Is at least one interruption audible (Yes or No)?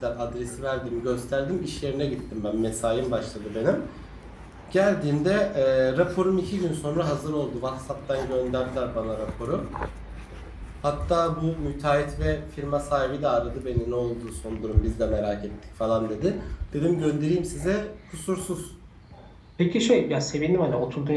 No